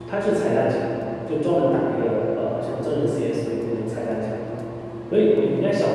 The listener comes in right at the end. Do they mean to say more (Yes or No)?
No